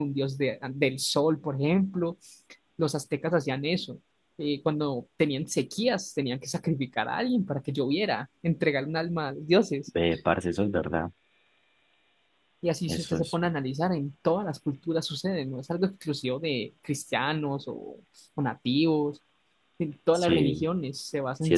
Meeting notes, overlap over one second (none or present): none